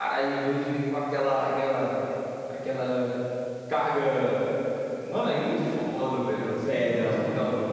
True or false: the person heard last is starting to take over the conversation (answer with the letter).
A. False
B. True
B